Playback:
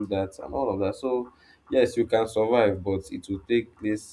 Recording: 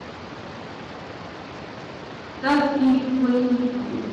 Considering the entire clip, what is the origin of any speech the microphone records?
user only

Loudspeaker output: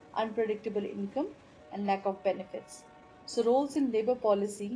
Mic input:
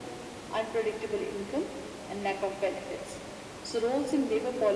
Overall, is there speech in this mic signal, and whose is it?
echo only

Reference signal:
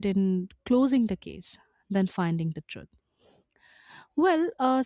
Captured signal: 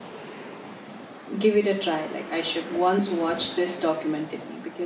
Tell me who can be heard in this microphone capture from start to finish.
user only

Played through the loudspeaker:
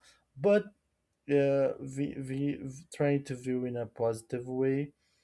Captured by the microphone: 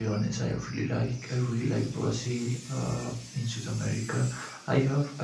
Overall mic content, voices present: user only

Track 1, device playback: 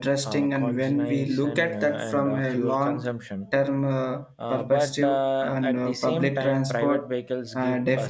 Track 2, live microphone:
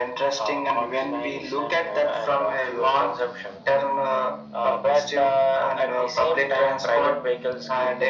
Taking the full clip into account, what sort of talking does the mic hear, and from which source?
echo only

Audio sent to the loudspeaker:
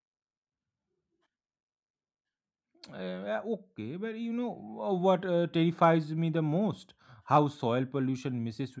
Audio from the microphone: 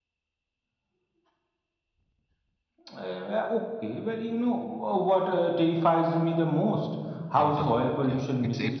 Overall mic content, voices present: both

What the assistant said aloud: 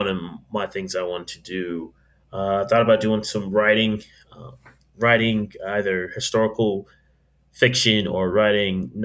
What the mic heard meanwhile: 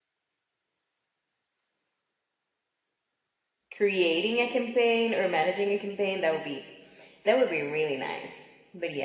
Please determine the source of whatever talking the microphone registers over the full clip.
user only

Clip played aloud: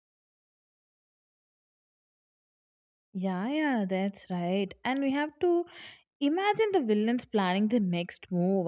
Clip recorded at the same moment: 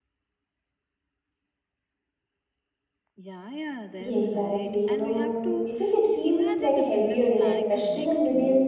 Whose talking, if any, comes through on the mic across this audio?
both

